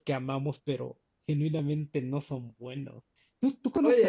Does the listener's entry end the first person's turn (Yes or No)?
Yes